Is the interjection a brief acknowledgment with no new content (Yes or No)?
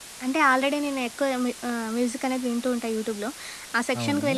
Yes